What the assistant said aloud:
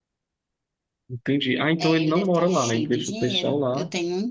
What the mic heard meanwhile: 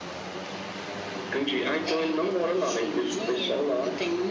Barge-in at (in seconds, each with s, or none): none